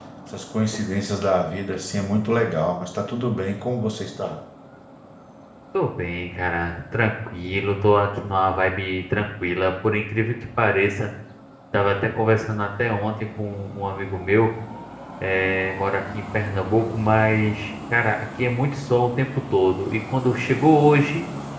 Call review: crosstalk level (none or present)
none